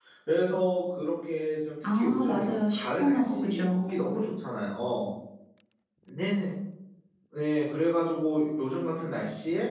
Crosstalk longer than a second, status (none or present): present